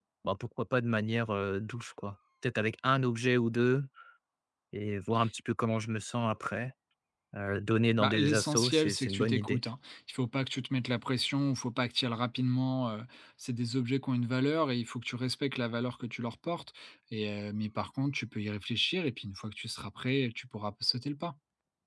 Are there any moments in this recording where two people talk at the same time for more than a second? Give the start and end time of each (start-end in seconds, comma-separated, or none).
8.0-9.6